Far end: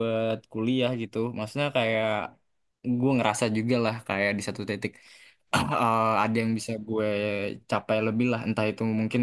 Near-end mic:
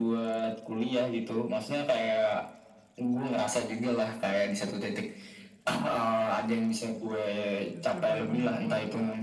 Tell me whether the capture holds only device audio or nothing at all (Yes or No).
No